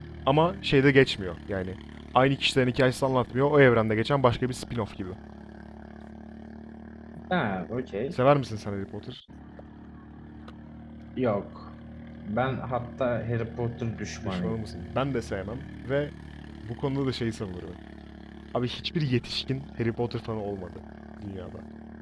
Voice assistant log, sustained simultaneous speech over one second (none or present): none